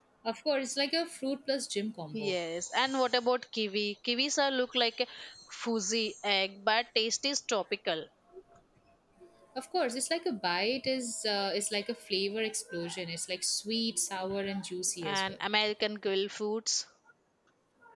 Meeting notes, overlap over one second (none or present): none